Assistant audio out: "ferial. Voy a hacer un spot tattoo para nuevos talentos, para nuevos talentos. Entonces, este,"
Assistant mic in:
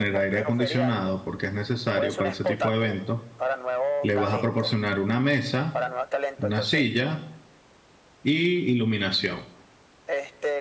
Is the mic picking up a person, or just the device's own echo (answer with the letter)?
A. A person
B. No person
A